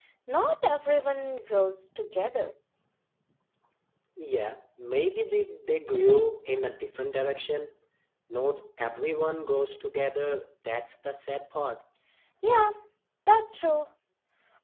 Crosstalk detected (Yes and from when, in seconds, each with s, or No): No